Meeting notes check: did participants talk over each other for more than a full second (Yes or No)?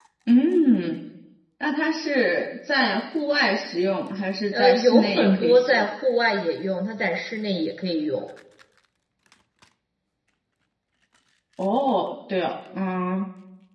Yes